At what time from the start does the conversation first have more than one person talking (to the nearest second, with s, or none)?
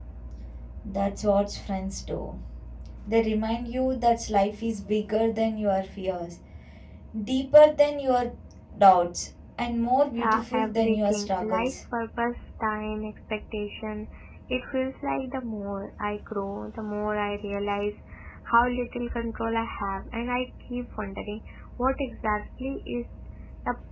10 s